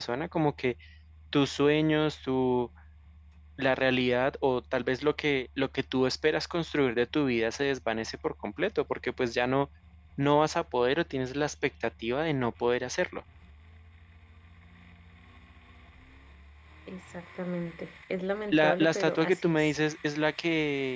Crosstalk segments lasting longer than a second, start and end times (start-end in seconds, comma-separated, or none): 18.5-19.8